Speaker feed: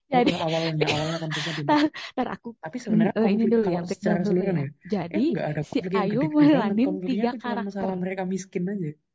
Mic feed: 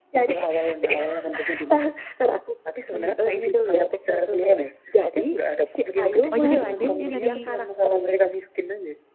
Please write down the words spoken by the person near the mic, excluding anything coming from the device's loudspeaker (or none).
oh. Jadi perspektifnya dari